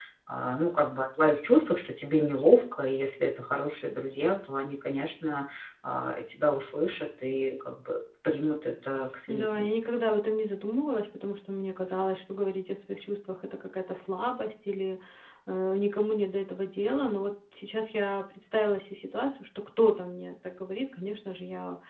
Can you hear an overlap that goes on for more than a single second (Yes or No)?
No